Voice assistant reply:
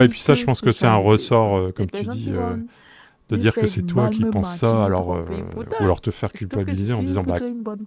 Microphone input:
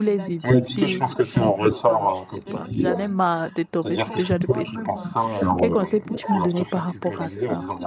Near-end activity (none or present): present